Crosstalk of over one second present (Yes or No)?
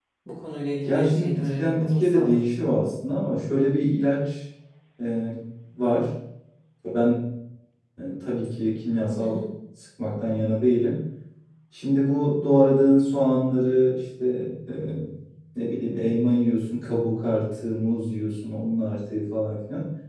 Yes